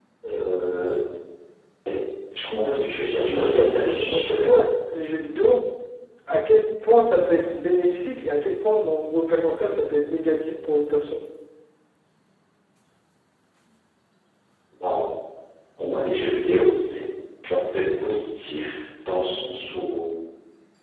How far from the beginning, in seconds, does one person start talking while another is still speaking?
3.3 s

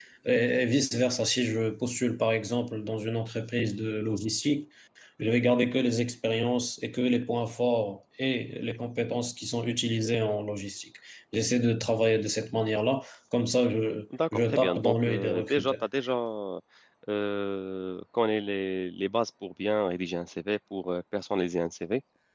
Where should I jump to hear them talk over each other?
14.1 s

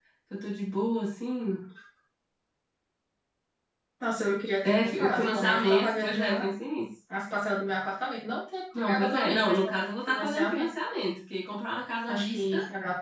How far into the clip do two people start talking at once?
4.6 s

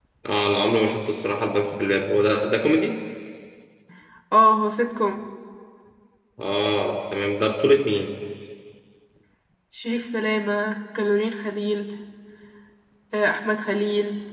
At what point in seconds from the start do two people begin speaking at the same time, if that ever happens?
none

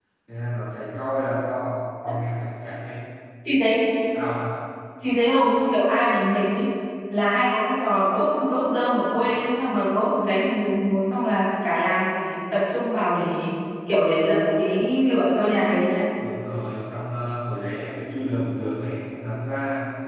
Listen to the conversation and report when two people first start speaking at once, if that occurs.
none

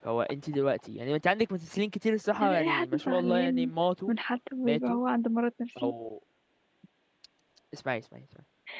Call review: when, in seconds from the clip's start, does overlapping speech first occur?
2.4 s

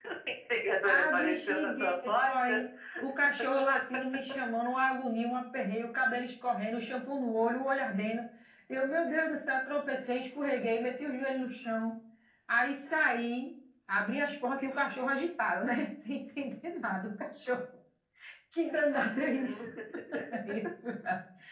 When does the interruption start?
0.8 s

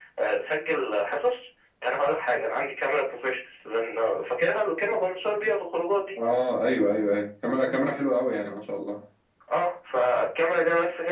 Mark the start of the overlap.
none

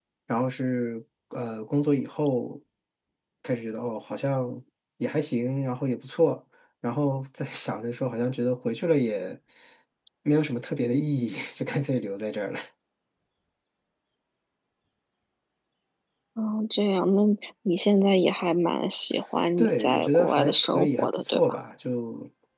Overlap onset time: 19.6 s

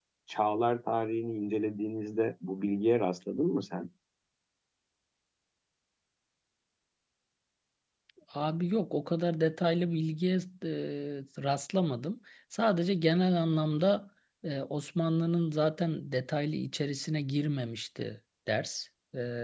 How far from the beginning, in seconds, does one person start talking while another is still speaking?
none

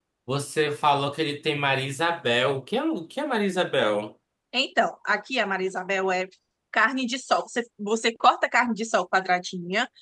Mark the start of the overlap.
none

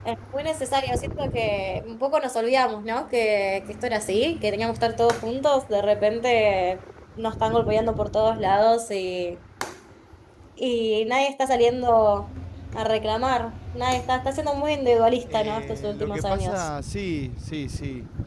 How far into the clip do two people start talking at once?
15.3 s

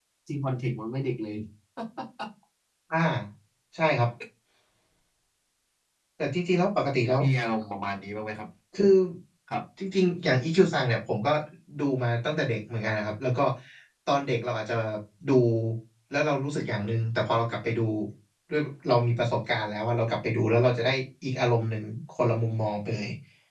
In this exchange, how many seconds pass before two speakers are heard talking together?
none

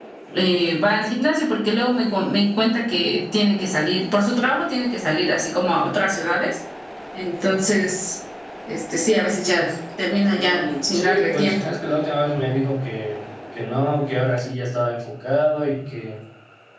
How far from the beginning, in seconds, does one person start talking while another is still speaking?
10.3 s

